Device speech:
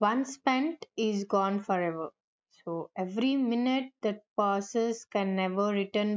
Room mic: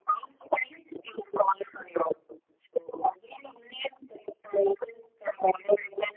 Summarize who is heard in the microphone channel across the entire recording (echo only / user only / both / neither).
echo only